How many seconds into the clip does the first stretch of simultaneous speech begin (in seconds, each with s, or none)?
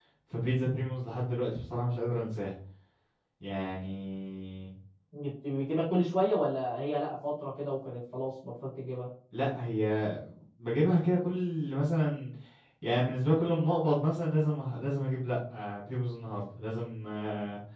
none